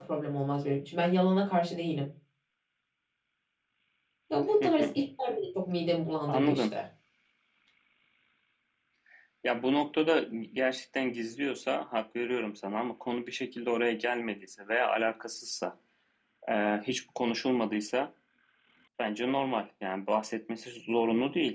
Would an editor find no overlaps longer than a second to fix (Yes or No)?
Yes